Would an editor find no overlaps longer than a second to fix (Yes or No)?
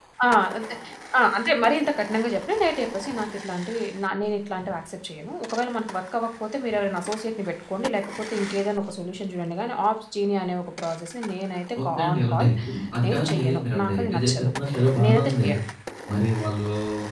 No